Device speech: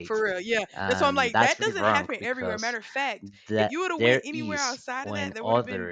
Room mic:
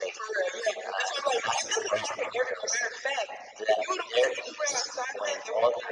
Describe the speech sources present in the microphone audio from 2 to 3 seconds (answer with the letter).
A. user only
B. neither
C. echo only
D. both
C